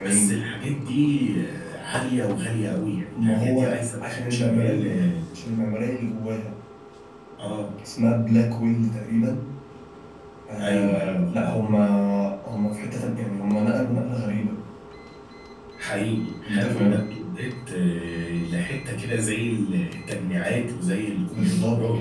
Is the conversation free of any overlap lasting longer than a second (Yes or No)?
No